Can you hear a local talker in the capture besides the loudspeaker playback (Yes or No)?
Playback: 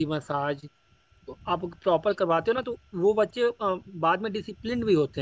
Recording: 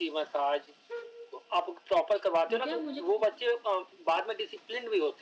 Yes